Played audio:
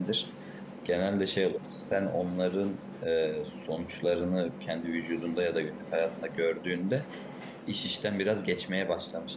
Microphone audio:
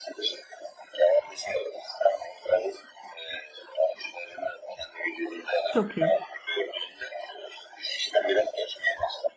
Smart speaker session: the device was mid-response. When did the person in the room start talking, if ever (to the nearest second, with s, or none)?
6 s